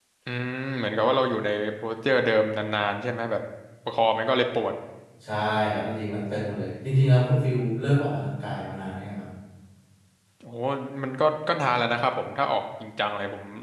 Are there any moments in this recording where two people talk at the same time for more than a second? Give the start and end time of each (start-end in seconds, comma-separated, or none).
none